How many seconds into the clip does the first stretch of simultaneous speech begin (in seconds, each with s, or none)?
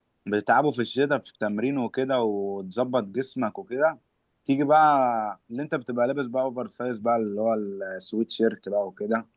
none